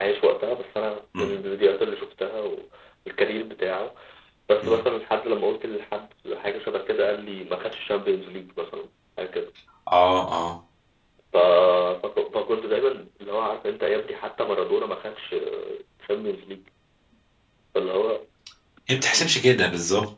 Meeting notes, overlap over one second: none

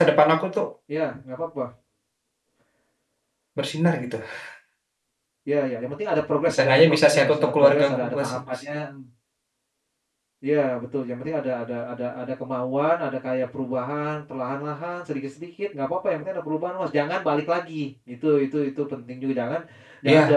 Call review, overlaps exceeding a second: present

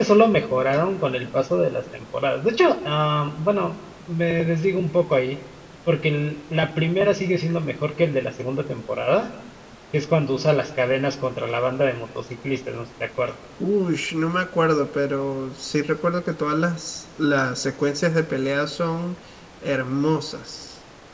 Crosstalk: none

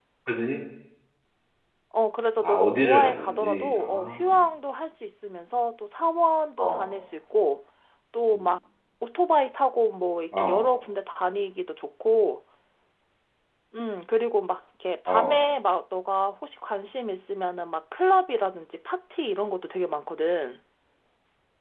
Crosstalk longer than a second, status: present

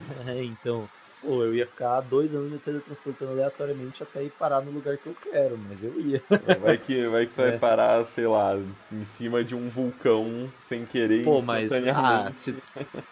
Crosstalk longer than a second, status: present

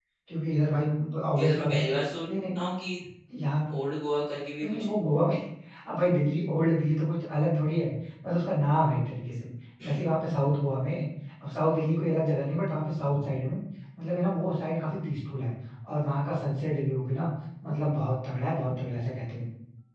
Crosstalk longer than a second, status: none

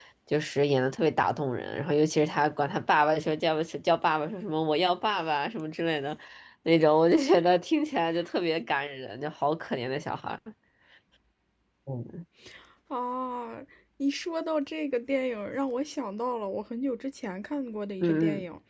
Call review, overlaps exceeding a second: none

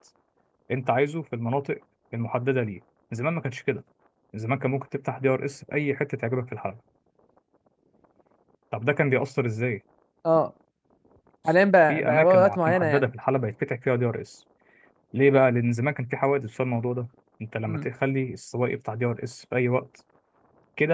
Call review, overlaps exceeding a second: present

